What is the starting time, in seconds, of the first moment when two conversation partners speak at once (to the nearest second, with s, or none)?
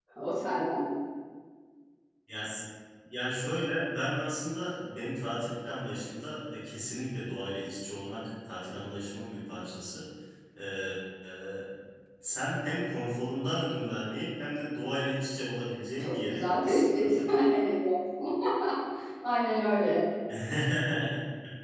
16 s